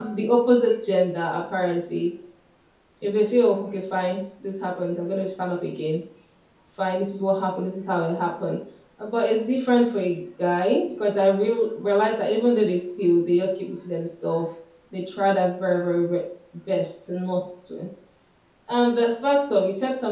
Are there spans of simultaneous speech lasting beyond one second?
No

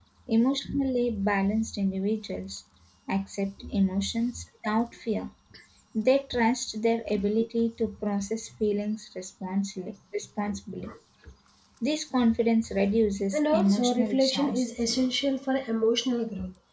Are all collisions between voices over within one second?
No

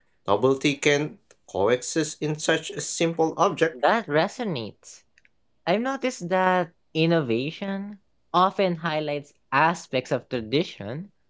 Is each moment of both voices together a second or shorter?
Yes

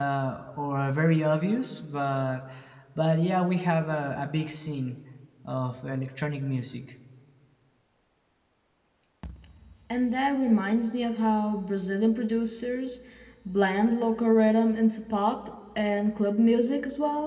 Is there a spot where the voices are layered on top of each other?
No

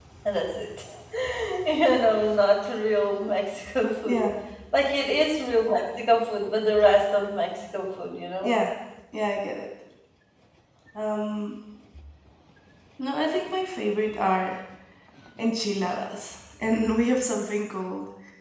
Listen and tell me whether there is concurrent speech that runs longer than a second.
No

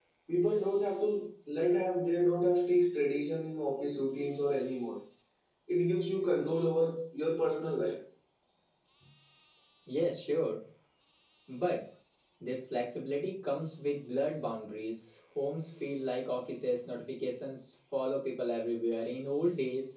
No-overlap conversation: Yes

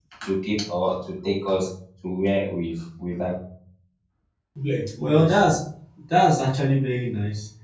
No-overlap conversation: Yes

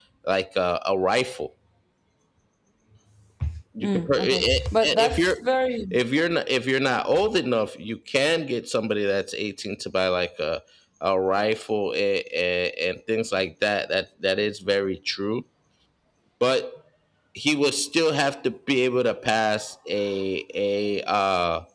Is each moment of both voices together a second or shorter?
No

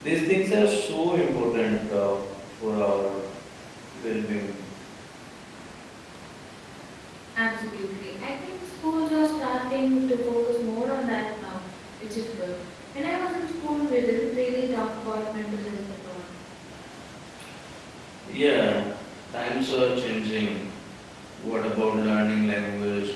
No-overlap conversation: Yes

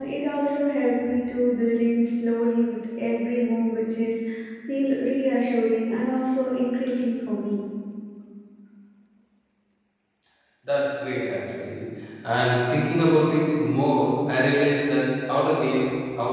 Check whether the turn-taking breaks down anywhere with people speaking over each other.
No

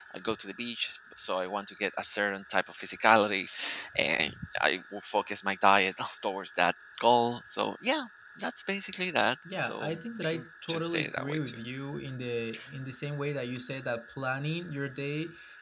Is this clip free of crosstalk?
No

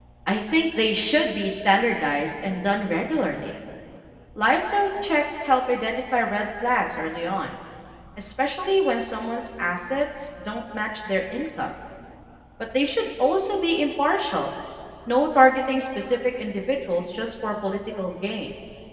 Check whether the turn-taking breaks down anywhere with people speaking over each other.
No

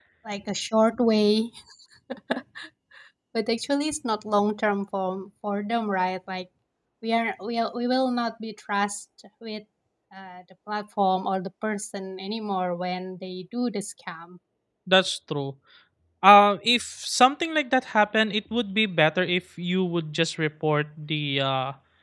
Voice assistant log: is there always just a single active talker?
Yes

